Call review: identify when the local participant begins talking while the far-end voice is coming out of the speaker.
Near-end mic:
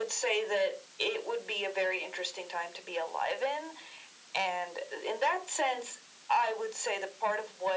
none

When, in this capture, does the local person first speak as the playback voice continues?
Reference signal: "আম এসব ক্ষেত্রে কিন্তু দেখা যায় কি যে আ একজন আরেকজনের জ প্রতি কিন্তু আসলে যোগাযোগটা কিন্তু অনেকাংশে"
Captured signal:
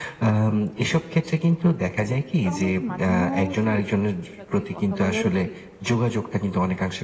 2.4 s

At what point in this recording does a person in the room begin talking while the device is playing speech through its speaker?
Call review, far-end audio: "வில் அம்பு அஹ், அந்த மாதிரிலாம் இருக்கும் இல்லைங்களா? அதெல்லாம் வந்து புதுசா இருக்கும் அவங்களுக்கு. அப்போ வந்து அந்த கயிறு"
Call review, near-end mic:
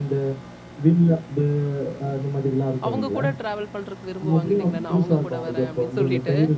2.9 s

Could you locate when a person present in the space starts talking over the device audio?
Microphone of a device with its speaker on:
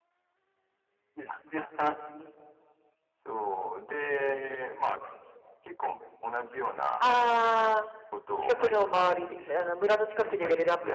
7.0 s

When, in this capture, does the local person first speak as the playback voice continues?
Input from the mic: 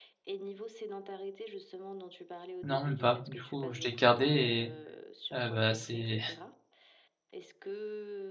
2.6 s

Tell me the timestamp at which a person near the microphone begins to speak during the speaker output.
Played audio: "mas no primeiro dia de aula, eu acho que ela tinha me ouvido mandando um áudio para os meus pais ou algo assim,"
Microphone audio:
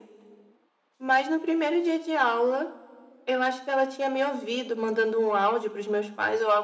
none

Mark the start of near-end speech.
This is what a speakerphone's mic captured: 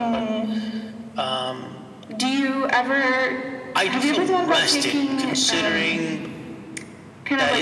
none

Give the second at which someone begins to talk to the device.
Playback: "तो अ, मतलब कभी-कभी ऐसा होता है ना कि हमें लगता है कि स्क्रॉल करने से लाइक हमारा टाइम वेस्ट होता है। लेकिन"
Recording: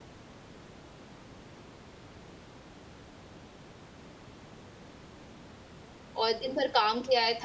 6.2 s

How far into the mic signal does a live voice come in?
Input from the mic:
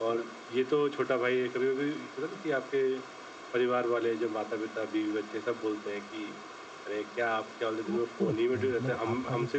7.8 s

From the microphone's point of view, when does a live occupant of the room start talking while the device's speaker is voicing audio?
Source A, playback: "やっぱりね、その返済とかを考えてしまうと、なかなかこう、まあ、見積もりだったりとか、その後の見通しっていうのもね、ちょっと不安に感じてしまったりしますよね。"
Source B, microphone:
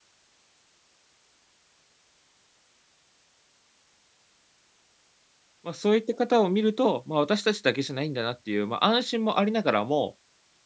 5.6 s

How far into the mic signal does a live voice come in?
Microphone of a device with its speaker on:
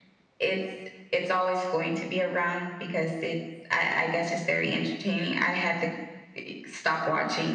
none

